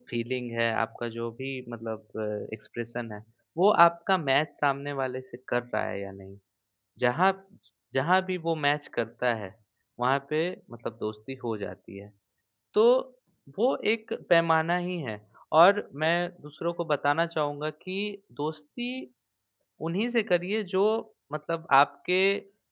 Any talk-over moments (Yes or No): No